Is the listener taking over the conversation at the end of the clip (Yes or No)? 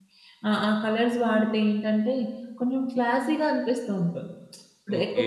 No